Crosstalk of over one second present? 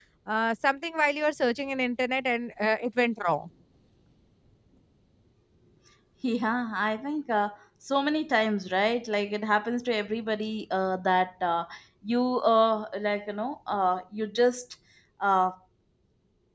No

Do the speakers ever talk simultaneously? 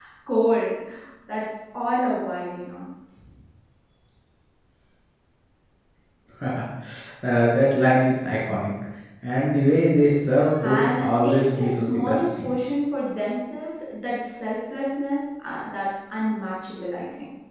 Yes, from 10.6 s

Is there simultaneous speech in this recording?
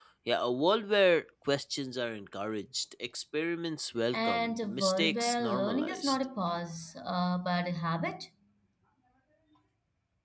Yes, from 4.1 s

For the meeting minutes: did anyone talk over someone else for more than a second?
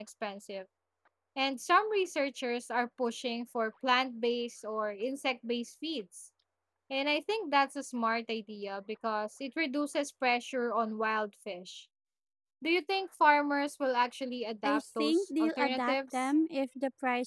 Yes, from 14.6 s

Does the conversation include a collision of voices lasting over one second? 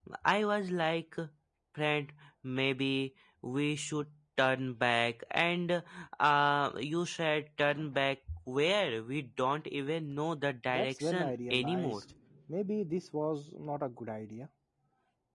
Yes, from 10.7 s

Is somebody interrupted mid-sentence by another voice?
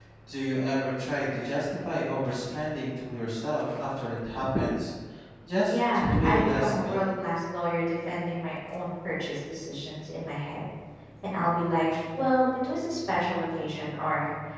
Yes, from 5.7 s

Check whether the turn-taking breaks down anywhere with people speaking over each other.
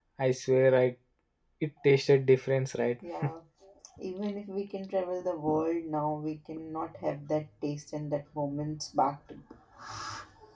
No

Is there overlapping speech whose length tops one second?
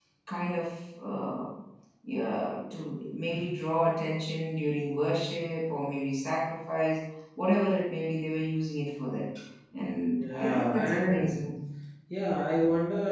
Yes, from 10.1 s

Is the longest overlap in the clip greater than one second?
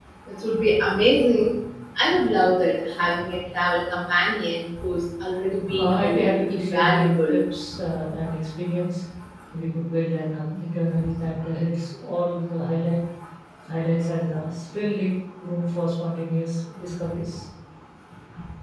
Yes, from 5.8 s

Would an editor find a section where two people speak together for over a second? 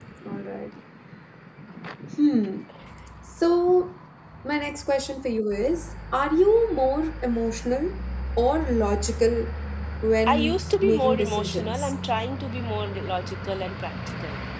Yes, from 10.3 s

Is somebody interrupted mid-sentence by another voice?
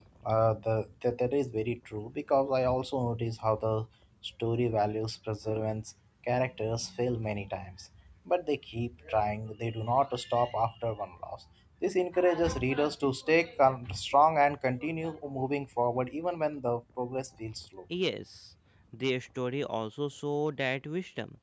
No

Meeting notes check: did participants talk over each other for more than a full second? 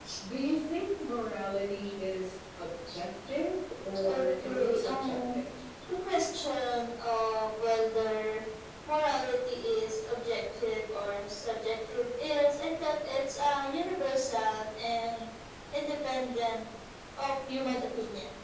Yes, from 4.0 s

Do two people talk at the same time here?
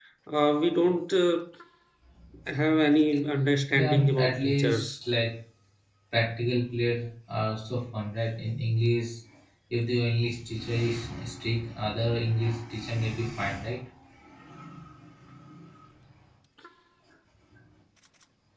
Yes, from 3.7 s

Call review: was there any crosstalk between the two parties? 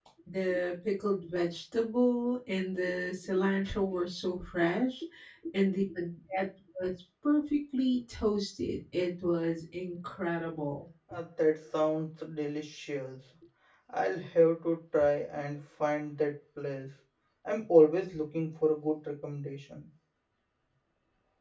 No

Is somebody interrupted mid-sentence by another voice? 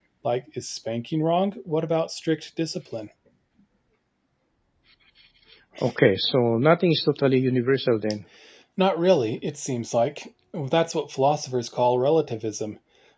No

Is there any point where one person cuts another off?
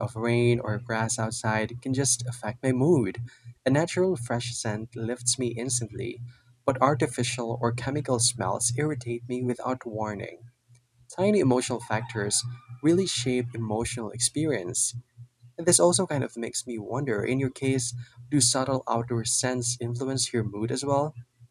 No

